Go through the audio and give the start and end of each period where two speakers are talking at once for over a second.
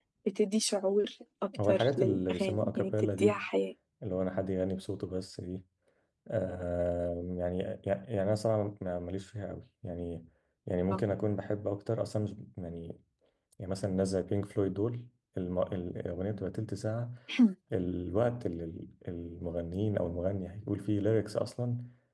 1.6-3.4

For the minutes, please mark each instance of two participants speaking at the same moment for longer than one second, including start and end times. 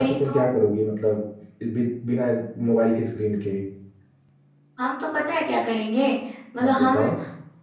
none

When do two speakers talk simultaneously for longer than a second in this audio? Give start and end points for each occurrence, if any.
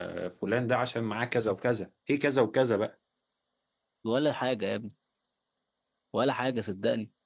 none

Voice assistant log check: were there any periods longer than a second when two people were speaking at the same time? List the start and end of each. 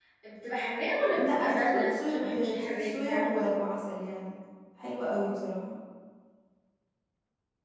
1.1-3.4

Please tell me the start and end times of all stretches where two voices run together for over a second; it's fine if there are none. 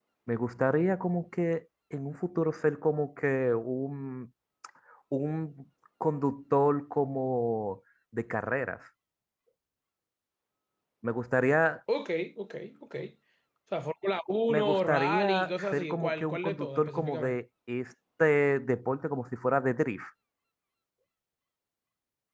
14.5-17.4

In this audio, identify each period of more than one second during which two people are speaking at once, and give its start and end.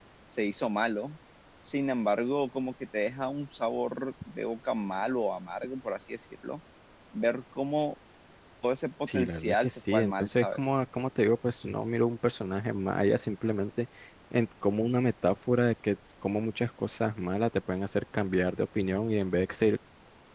9.1-10.6

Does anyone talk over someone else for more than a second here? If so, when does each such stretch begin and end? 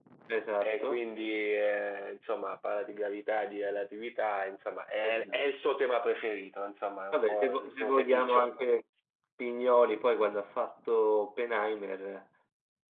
7.1-8.5

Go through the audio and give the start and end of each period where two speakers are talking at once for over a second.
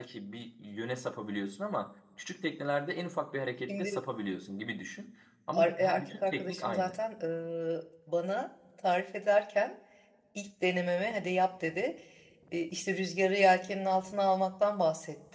5.5-7.0

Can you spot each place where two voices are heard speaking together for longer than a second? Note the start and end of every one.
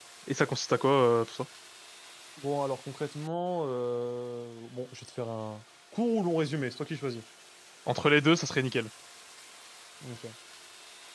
none

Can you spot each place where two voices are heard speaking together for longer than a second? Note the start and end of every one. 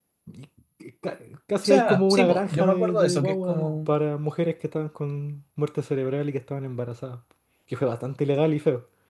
1.6-3.9

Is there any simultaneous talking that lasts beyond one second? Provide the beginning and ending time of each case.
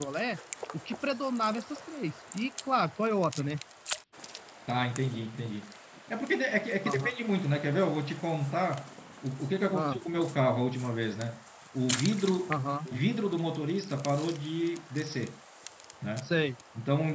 none

